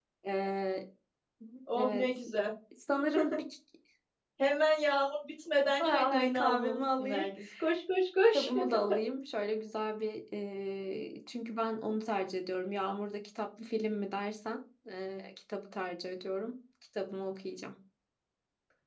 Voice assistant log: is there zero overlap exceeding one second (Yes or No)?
No